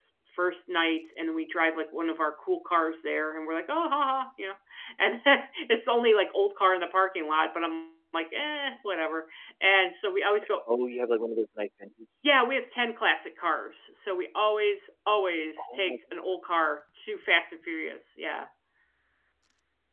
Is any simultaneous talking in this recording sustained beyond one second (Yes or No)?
No